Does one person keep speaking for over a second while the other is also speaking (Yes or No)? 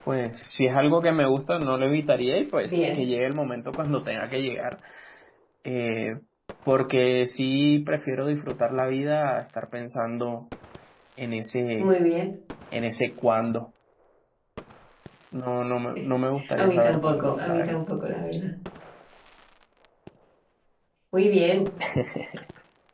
Yes